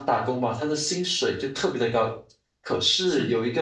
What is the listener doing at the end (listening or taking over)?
listening